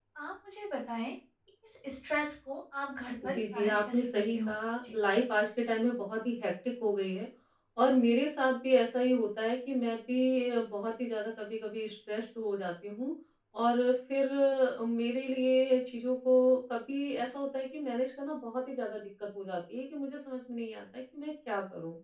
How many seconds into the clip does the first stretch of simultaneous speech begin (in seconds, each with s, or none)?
3.2 s